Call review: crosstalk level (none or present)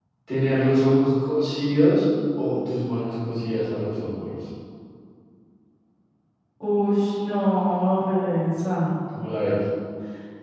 none